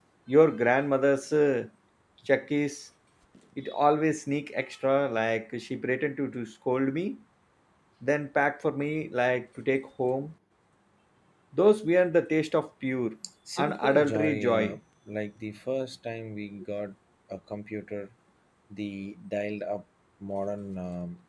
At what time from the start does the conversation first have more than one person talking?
14 s

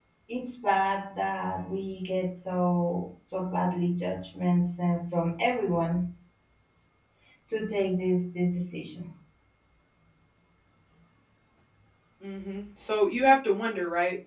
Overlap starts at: none

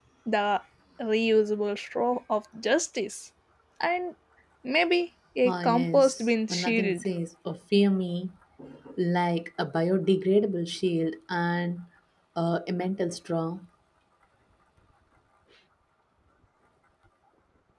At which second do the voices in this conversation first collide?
5 s

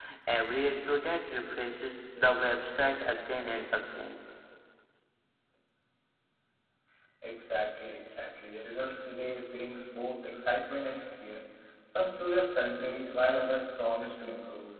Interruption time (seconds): none

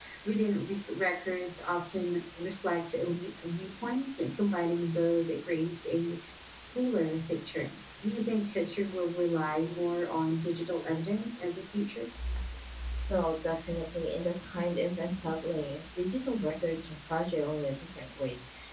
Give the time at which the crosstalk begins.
none

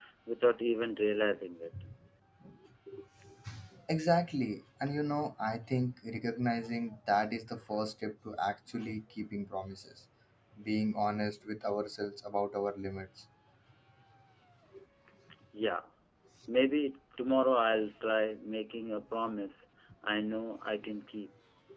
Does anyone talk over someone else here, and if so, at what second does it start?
none

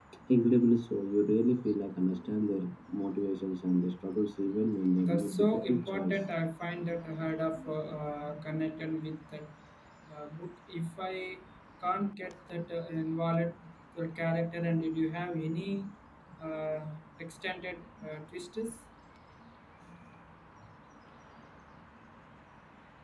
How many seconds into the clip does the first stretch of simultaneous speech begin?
5 s

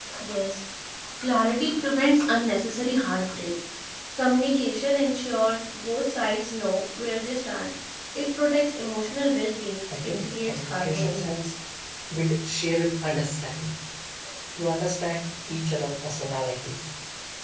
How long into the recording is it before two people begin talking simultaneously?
10 s

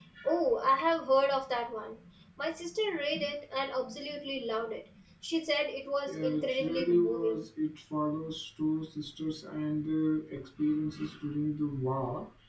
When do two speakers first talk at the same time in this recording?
6 s

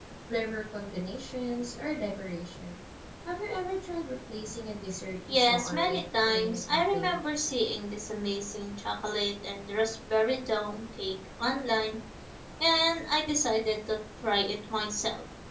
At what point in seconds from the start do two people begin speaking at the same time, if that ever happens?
5 s

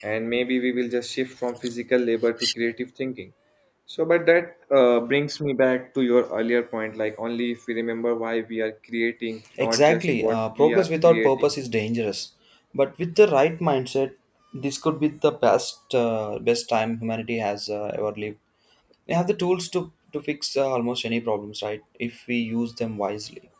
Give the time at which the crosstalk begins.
10 s

